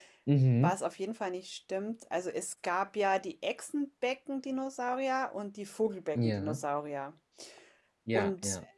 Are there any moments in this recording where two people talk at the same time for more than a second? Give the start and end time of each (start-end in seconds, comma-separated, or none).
none